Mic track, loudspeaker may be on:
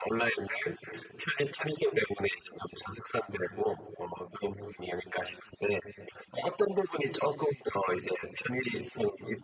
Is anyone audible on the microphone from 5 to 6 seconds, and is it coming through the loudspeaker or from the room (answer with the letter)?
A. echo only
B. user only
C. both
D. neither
A